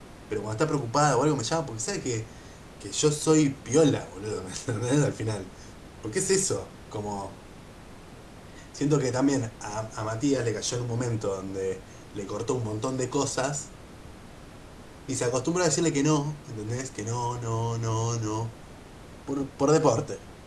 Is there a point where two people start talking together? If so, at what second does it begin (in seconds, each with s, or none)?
none